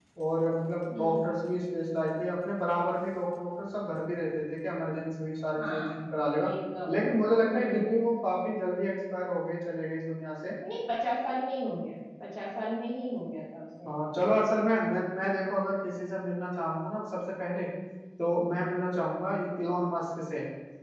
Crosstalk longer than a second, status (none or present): none